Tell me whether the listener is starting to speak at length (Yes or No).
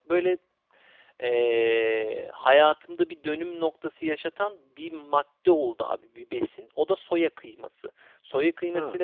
No